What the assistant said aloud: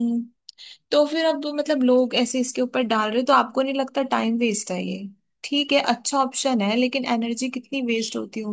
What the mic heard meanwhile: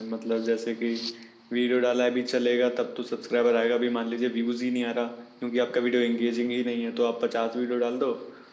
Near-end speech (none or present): present